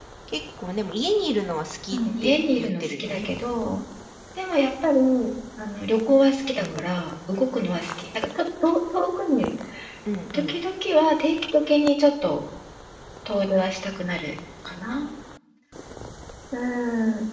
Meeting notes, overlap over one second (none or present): present